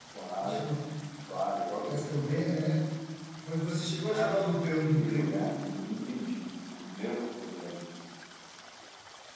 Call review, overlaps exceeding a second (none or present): present